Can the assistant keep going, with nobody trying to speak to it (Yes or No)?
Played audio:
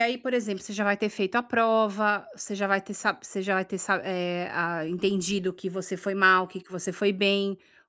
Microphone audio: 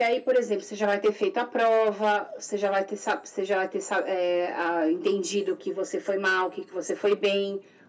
Yes